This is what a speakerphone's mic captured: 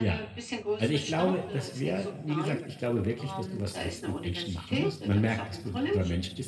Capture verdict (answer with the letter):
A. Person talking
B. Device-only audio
A